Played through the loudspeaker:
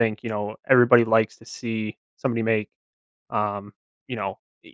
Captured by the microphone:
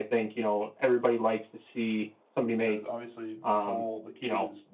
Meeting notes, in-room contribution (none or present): present